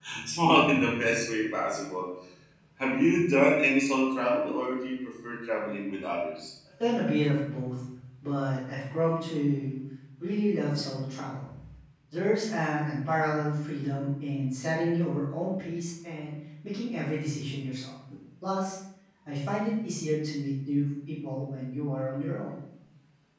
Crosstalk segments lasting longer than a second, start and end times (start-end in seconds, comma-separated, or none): none